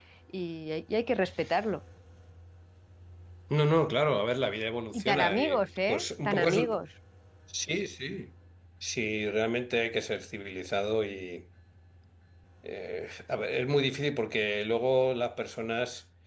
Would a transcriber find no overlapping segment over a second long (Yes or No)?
No